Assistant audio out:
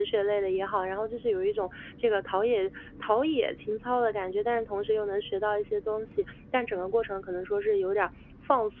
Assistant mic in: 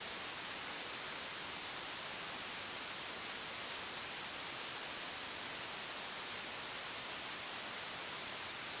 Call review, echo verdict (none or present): none